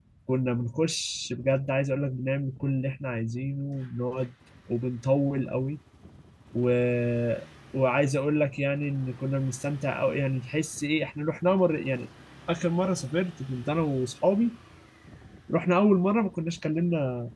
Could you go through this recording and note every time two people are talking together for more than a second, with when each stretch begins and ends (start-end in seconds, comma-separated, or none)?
none